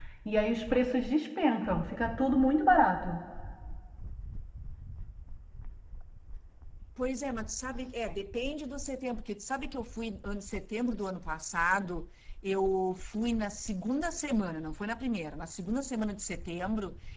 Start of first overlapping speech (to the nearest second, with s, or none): none